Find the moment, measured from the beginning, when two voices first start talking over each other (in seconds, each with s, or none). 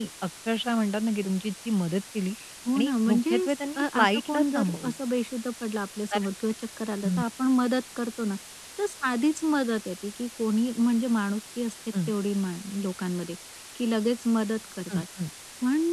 2.8 s